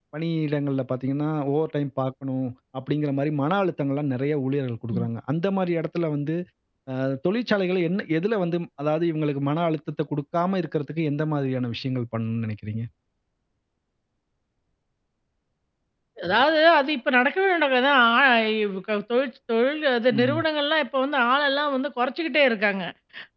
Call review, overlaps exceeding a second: none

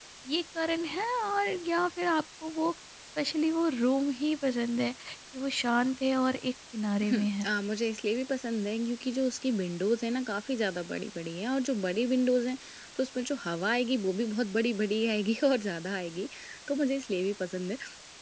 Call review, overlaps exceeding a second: none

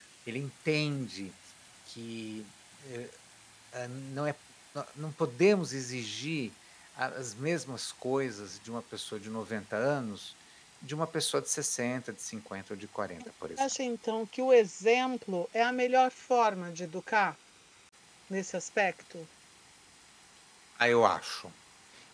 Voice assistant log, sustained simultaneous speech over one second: none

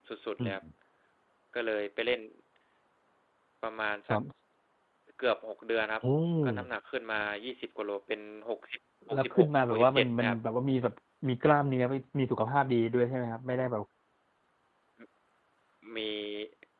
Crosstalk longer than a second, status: present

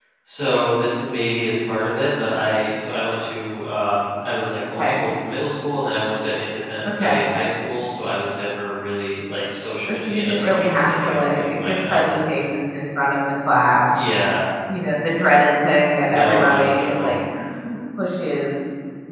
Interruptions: present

